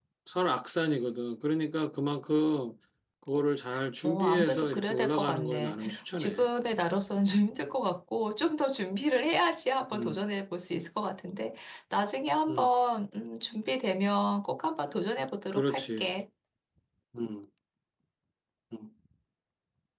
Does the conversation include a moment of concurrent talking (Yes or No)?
Yes